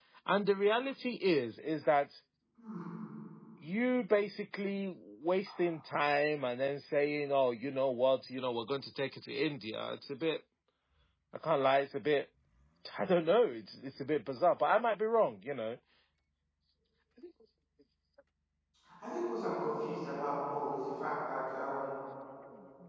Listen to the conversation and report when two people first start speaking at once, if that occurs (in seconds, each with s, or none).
none